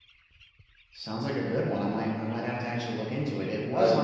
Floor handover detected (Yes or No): No